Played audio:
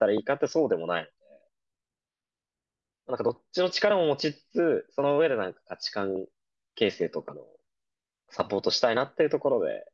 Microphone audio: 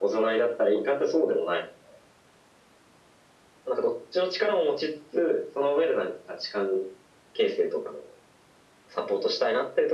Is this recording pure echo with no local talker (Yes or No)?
Yes